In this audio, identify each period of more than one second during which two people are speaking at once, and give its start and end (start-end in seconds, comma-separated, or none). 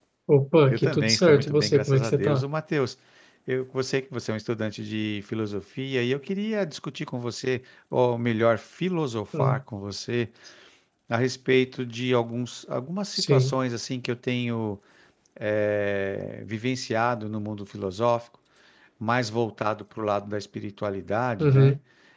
0.7-2.4